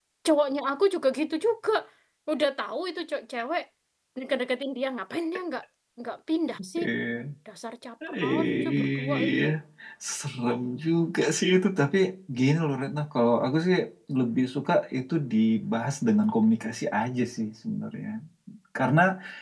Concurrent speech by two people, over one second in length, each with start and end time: 8.2-9.4

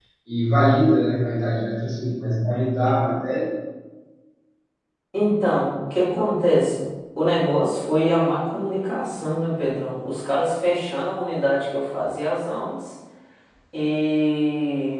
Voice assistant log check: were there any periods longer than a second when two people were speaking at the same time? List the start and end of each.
none

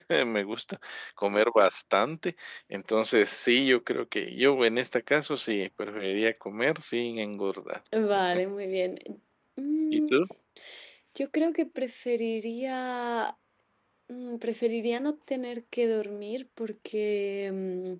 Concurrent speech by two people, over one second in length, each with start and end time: none

